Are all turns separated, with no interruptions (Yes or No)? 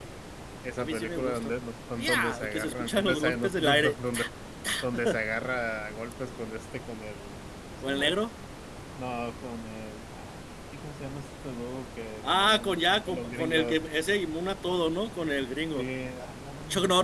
No